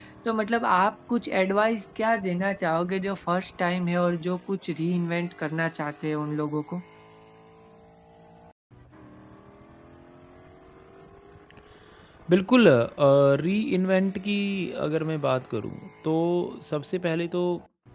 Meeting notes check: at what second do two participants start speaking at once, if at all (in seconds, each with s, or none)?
none